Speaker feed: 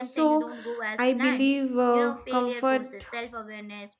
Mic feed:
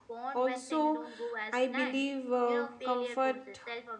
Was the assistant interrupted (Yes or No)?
No